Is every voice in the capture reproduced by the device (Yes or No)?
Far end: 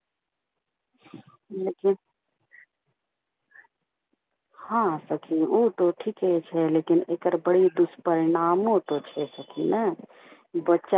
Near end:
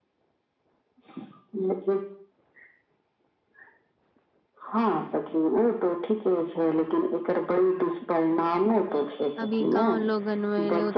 No